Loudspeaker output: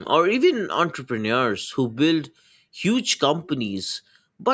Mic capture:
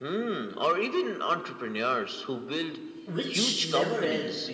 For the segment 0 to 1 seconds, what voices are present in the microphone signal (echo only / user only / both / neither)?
echo only